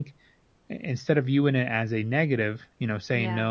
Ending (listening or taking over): listening